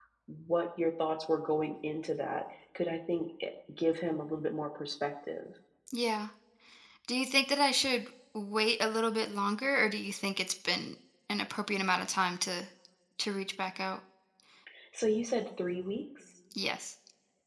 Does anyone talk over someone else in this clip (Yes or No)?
No